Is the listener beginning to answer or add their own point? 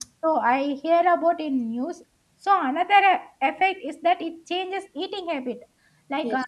No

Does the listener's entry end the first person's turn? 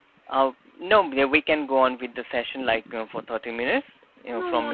Yes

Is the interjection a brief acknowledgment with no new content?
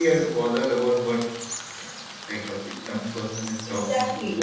No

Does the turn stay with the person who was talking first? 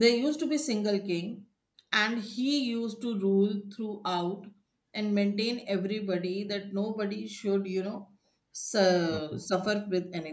Yes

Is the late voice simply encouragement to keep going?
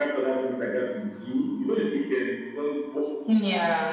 Yes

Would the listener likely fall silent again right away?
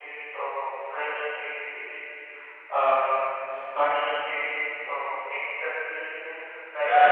No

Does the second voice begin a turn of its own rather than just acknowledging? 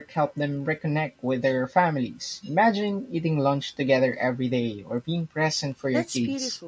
Yes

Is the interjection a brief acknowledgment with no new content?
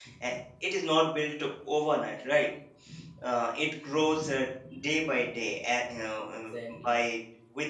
Yes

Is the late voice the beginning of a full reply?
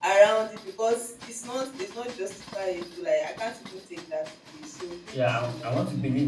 Yes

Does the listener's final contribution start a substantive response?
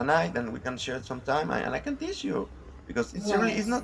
No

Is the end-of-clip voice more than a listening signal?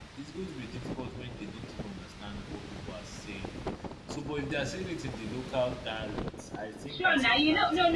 Yes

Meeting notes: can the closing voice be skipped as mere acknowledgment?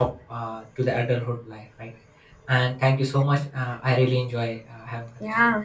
No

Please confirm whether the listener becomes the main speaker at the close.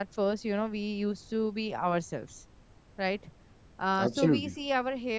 No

